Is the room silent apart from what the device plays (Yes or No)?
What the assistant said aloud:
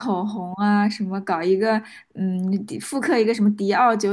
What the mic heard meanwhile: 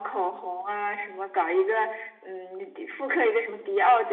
Yes